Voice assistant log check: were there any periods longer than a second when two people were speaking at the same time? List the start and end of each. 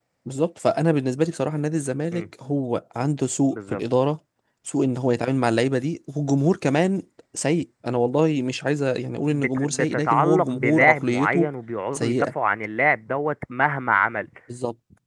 9.3-11.5

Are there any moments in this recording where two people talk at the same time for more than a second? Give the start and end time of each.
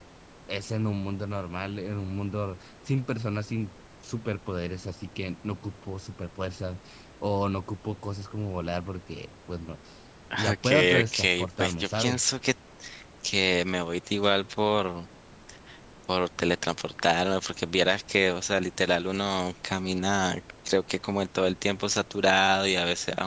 10.5-12.3

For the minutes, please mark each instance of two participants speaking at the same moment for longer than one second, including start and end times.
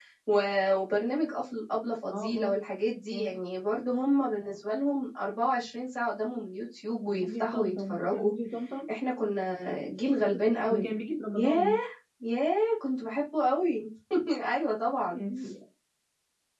7.1-8.3

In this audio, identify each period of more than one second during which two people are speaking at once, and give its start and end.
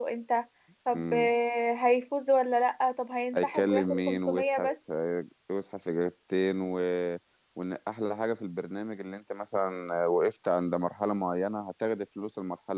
3.4-4.7

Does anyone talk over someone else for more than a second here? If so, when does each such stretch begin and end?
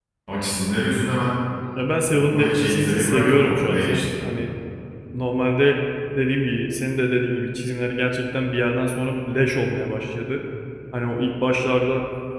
2.1-4.0

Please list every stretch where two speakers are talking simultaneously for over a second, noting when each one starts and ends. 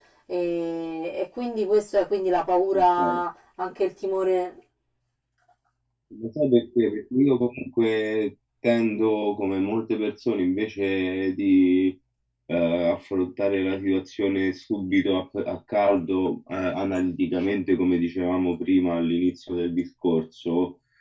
none

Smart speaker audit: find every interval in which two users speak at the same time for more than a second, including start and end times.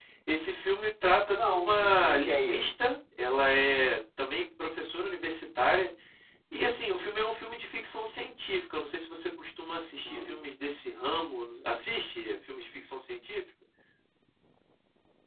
1.3-2.7

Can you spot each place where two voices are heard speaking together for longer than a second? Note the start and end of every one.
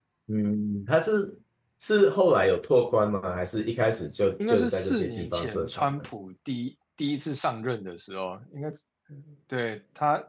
4.5-5.9

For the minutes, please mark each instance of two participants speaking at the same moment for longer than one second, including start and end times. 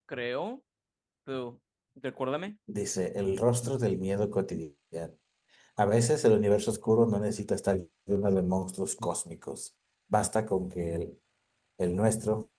none

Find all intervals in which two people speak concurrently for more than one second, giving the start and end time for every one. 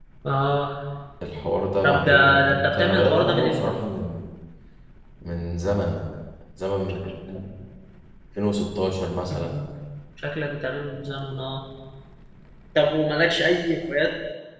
1.8-3.7

